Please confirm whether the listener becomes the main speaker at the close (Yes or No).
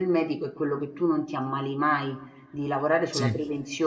No